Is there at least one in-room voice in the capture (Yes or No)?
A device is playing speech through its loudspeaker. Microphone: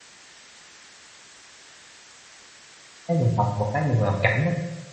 Yes